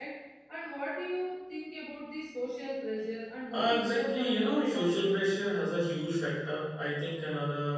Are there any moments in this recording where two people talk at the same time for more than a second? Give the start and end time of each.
3.5-5.1

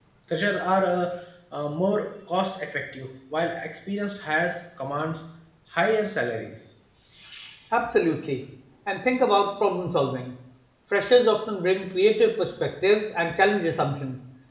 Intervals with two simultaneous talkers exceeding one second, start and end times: none

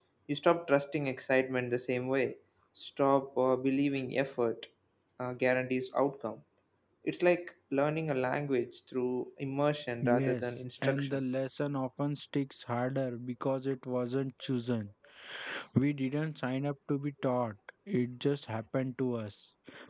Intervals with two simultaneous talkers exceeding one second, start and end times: 10.0-11.2

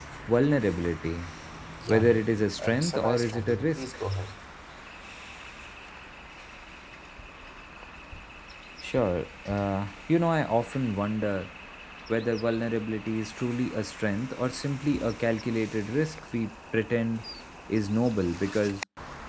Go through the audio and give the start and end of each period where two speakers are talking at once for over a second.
2.6-3.8

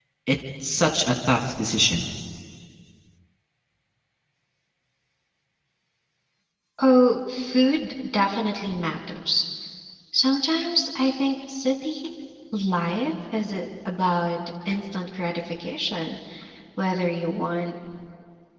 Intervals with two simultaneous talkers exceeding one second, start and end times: none

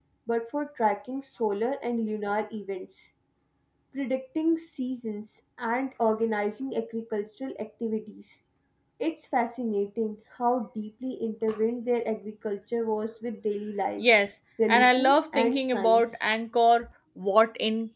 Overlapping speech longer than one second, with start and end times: 14.7-16.0

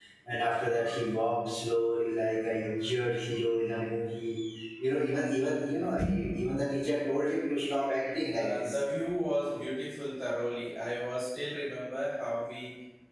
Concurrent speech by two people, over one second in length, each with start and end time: none

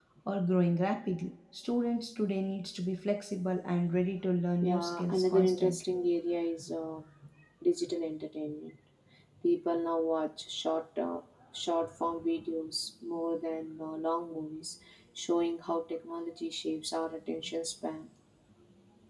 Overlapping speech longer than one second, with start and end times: 4.6-6.0

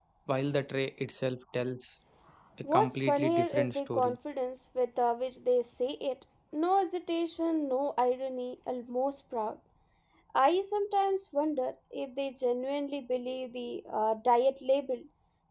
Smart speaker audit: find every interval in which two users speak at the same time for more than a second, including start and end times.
2.7-4.2

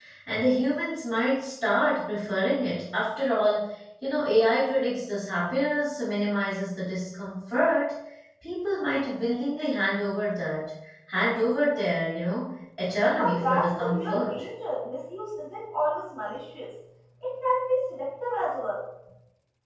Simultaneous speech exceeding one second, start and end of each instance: 13.2-14.4

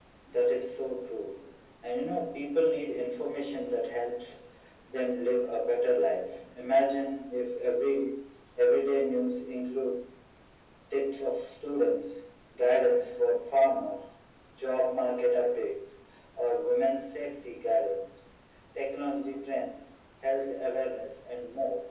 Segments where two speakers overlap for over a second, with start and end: none

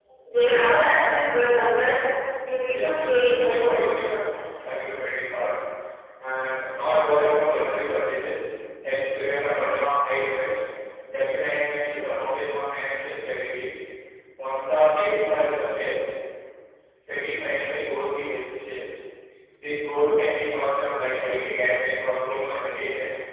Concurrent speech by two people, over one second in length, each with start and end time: 2.7-4.1

